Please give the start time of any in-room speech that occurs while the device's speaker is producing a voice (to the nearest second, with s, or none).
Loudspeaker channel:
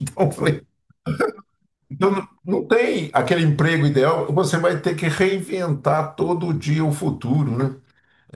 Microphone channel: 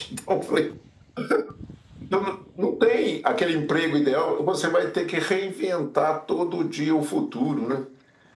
none